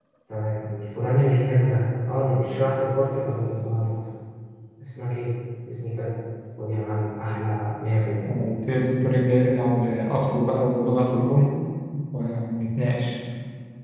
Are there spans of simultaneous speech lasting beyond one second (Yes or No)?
No